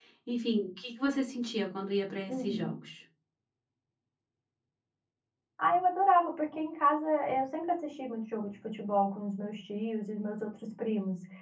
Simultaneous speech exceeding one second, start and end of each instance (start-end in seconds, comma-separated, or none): none